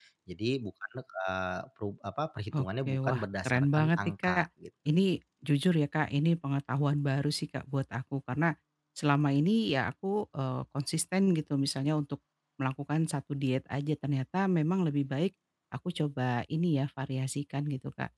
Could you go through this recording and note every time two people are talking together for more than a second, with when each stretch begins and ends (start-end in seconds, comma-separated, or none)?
2.6-4.5